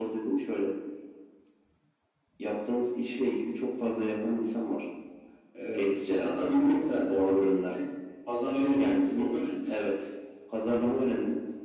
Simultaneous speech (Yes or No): Yes